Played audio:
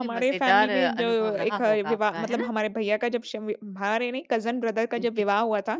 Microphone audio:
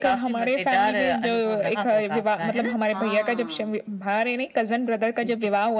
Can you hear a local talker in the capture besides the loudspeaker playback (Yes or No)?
Yes